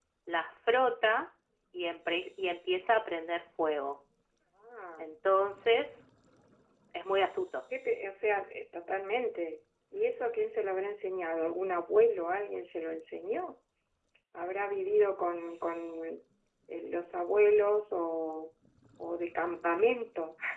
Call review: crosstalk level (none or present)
none